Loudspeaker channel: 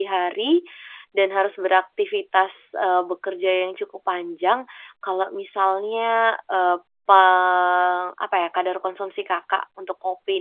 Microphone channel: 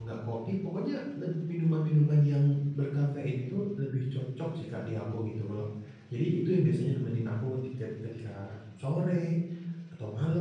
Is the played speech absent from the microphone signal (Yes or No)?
Yes